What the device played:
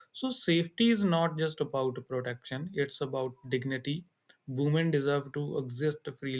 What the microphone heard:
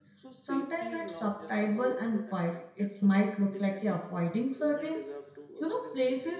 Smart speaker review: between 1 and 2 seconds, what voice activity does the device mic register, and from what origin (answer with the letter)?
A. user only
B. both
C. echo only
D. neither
B